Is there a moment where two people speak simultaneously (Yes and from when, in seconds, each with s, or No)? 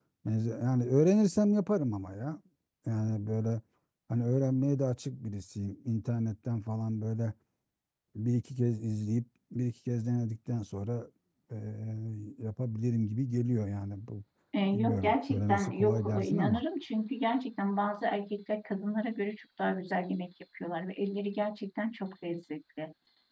Yes, from 14.7 s